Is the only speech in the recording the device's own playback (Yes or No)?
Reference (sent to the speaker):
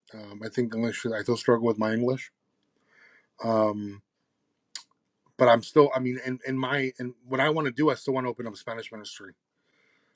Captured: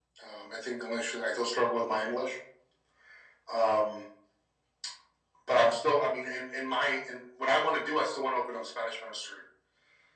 Yes